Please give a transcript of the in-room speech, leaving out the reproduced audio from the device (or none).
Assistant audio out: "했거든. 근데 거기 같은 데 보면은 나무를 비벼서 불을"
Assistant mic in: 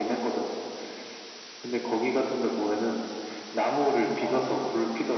어,